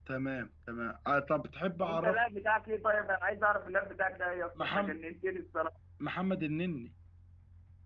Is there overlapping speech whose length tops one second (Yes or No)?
No